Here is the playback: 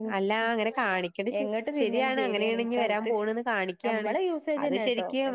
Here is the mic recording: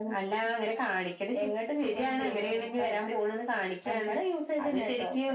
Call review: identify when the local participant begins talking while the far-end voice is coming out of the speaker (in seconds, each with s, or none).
none